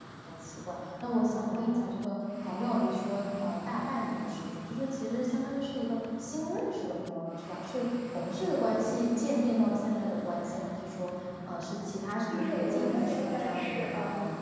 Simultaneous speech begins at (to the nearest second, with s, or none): 12 s